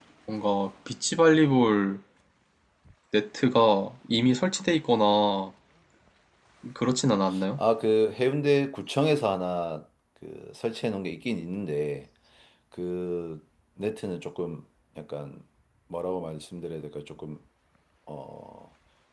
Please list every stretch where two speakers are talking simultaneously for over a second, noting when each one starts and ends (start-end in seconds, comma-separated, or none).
none